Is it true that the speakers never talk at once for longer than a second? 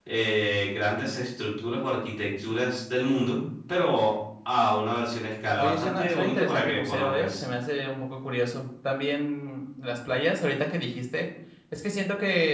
No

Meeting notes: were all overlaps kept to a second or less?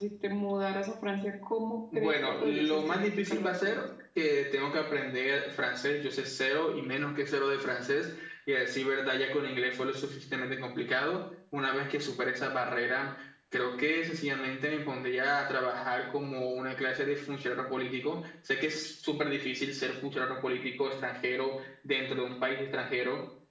No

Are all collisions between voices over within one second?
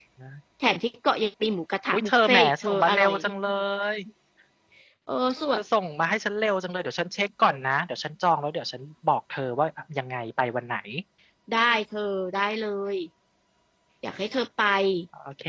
No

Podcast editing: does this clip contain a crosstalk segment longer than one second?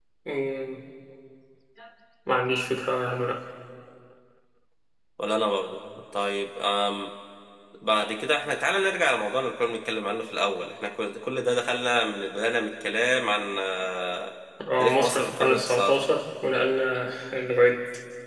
Yes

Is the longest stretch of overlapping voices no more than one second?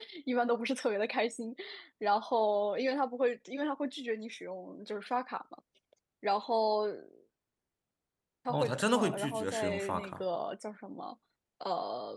No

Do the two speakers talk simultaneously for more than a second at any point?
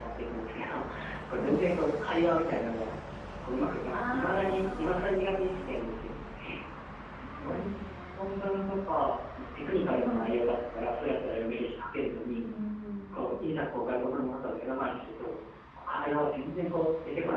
Yes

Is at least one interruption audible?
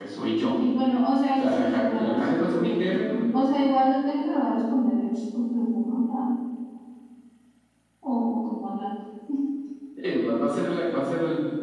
Yes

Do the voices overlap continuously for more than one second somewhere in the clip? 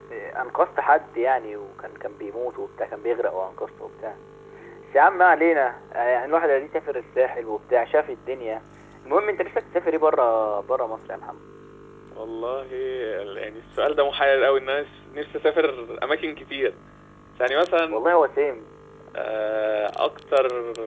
No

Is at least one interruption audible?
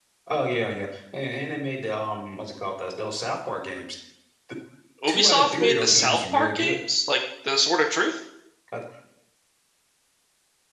Yes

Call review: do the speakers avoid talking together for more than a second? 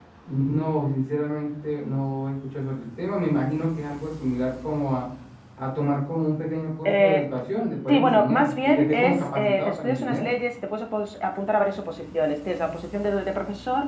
No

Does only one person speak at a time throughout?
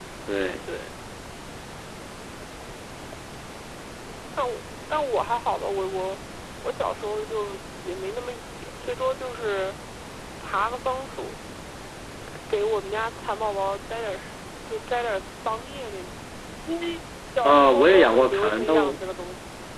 No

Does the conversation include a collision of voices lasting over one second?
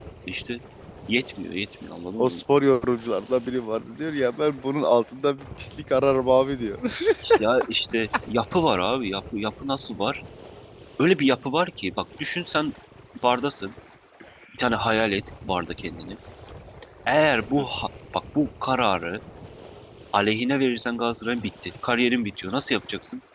No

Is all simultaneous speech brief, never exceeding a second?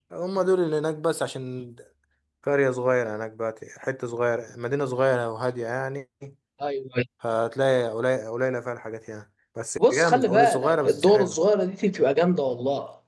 No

